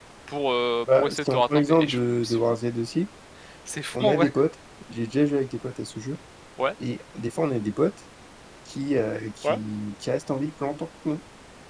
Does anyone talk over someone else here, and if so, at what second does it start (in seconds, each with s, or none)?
1.0 s